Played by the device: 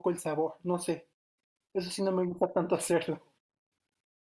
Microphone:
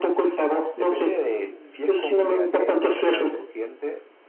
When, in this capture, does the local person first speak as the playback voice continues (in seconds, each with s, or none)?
0.7 s